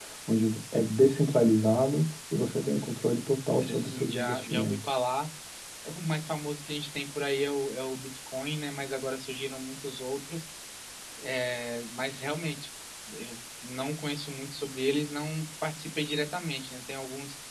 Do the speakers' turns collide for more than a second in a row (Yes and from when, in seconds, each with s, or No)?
Yes, from 3.5 s